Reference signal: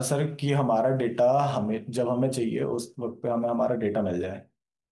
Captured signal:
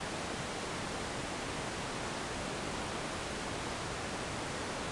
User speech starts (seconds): none

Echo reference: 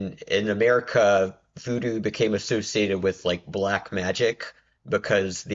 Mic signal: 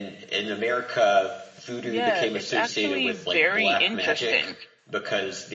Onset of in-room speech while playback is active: 1.8 s

